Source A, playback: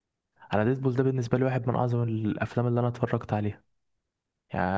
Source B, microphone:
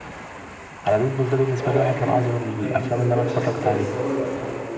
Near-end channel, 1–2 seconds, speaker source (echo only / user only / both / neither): both